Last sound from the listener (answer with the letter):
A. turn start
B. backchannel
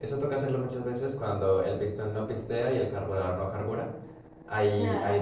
B